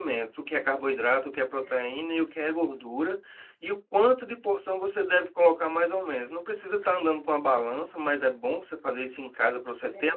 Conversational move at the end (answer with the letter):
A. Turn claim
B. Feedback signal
B